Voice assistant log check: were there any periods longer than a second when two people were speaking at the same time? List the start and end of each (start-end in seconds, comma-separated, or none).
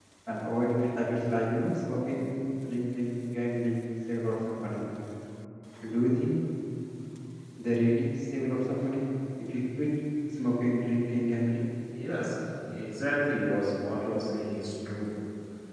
none